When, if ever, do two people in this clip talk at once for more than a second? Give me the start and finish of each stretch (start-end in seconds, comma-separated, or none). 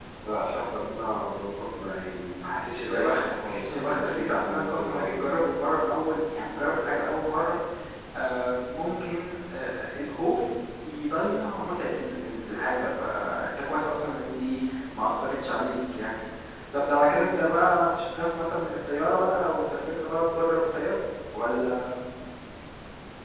2.9-5.3